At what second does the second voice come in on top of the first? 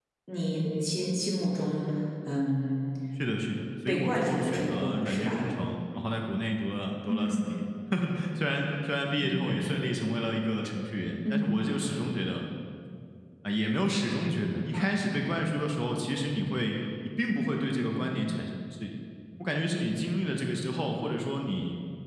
3.9 s

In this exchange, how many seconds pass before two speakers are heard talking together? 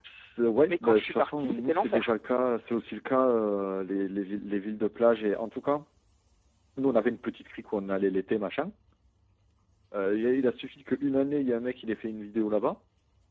0.7 s

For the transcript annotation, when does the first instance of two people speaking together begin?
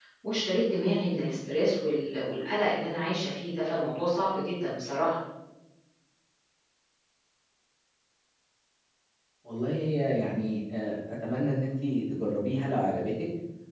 none

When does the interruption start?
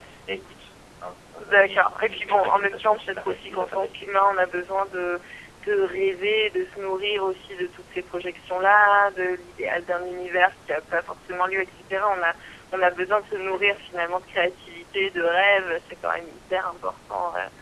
1.4 s

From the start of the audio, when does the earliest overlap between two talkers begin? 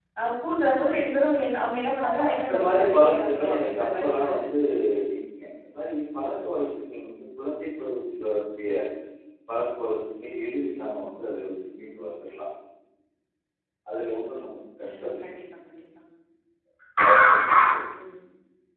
2.1 s

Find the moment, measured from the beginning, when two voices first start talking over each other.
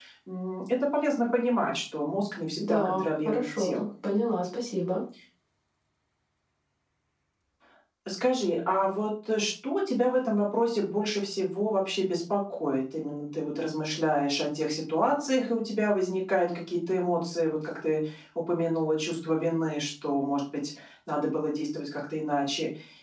2.6 s

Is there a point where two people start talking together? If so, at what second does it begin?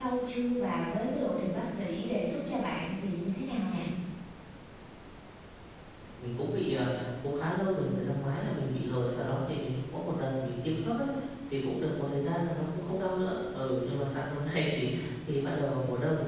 none

